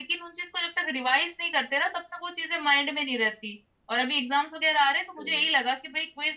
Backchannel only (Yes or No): Yes